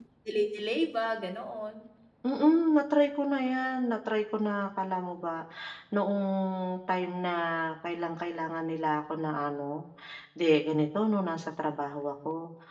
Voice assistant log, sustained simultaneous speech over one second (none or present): none